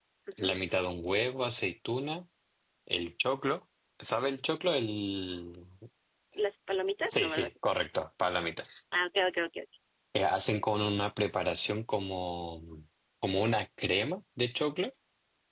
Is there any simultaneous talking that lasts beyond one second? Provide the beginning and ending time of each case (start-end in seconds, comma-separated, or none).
none